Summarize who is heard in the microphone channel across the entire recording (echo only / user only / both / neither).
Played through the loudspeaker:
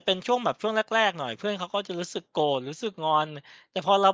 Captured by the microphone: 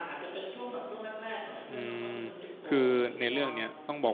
both